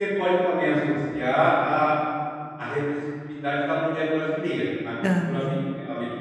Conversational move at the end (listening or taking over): listening